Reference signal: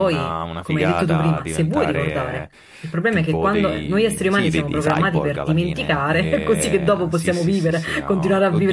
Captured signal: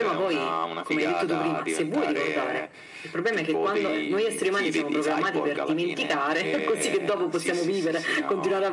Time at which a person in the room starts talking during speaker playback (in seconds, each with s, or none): none